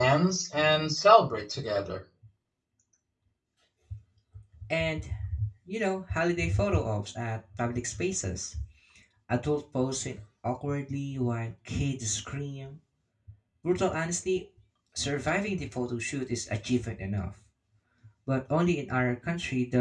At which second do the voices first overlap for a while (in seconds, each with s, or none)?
none